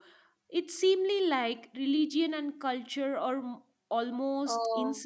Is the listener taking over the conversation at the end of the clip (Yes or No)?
Yes